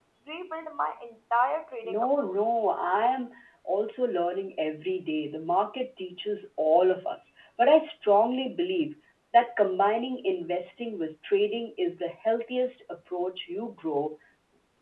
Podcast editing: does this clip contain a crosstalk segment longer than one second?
No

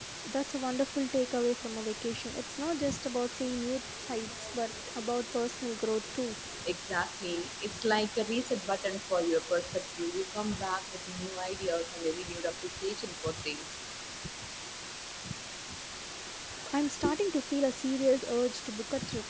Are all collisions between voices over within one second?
Yes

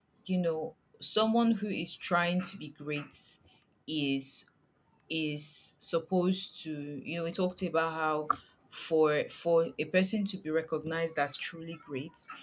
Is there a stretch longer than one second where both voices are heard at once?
No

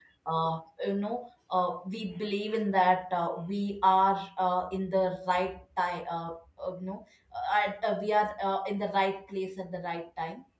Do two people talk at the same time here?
No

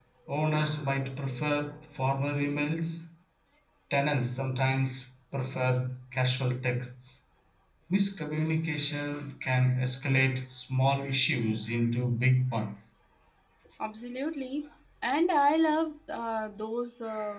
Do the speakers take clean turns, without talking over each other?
Yes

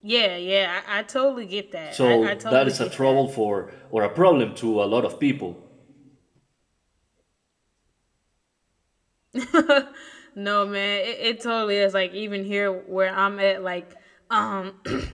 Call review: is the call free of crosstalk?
No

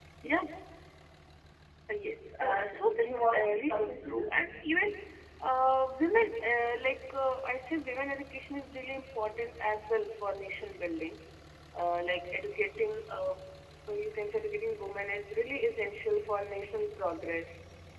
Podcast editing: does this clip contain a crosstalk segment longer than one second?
Yes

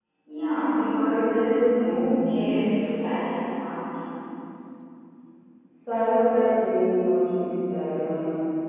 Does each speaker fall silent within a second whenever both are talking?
No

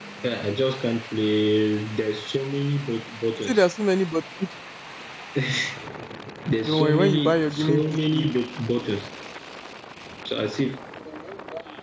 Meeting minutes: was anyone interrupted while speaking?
Yes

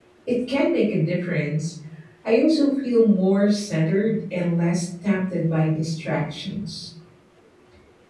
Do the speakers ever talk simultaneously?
No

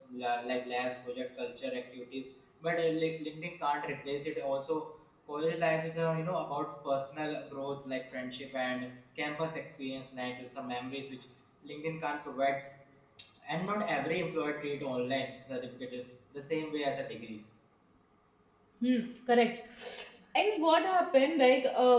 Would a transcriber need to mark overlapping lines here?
No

